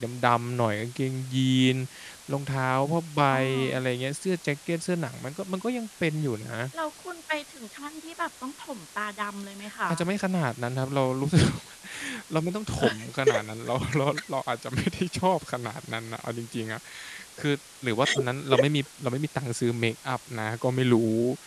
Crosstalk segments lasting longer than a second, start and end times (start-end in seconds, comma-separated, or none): none